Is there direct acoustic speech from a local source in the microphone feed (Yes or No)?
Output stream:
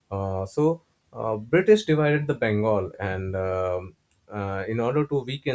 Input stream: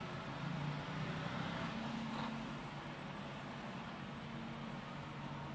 No